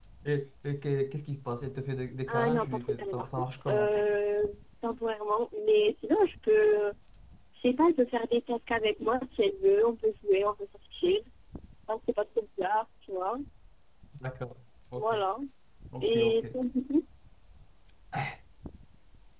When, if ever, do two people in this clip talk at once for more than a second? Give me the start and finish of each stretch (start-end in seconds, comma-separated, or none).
2.3-3.8